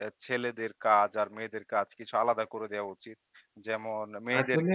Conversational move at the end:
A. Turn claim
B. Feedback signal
B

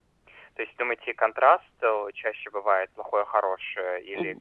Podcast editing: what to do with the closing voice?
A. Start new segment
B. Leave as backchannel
A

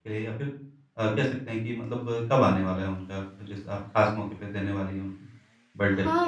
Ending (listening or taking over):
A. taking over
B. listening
A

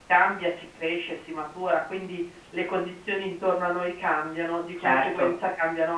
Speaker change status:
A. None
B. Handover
A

